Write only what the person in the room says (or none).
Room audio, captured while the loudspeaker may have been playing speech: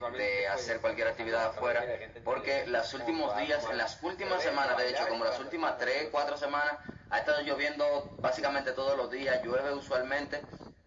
none